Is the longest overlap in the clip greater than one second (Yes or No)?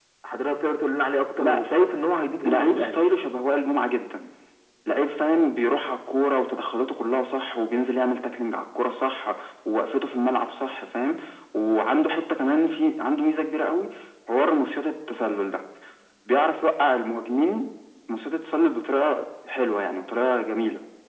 No